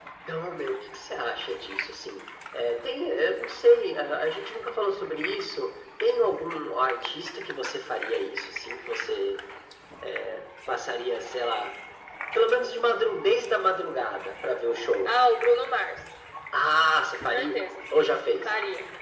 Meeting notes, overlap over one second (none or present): none